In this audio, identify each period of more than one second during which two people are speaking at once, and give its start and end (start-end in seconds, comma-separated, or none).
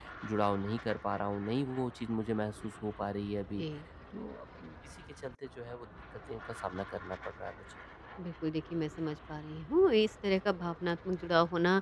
none